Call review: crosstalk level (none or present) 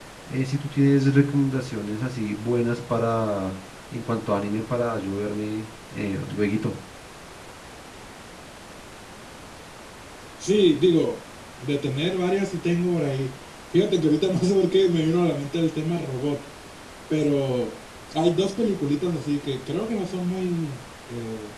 none